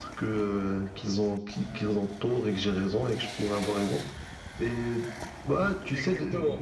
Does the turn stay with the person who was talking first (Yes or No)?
No